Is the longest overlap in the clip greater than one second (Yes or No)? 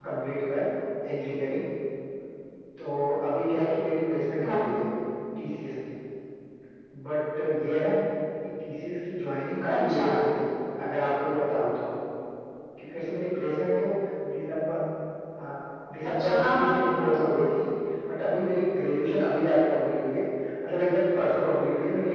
Yes